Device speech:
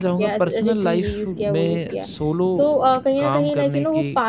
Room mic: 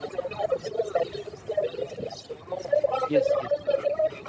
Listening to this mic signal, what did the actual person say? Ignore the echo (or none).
यस, यस।